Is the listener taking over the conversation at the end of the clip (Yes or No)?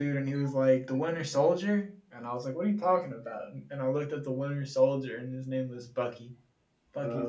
No